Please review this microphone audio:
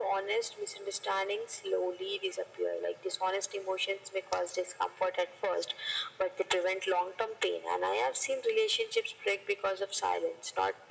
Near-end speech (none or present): none